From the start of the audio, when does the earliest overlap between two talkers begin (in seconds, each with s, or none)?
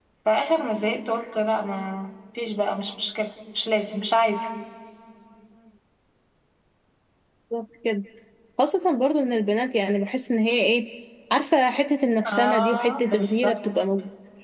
12.2 s